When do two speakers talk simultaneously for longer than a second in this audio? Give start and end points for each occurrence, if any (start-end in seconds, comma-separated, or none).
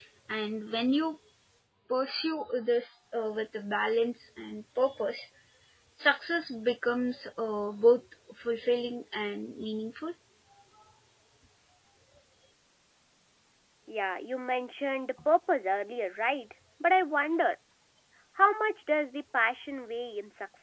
none